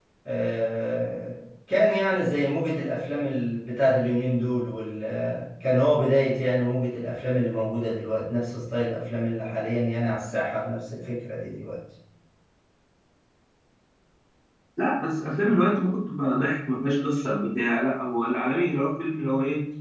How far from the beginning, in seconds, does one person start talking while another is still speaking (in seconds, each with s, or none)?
none